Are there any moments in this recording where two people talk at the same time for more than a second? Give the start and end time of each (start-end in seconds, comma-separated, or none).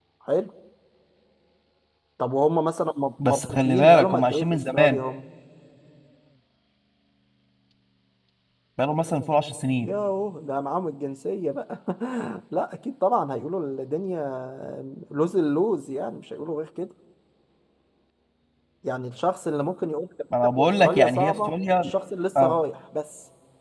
3.2-5.0, 20.6-21.9